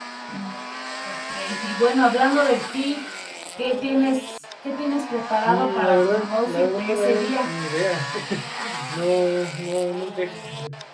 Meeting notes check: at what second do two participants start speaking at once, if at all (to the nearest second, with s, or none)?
5 s